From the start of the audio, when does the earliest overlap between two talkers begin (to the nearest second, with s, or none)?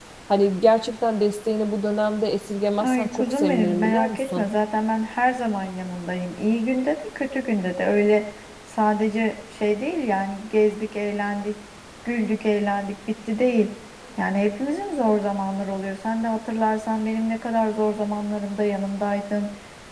3 s